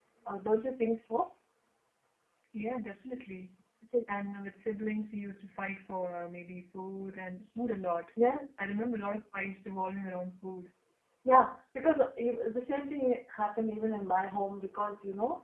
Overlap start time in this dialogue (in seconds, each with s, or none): none